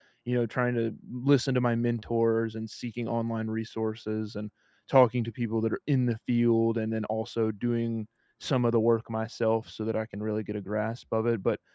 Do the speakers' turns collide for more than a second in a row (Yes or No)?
No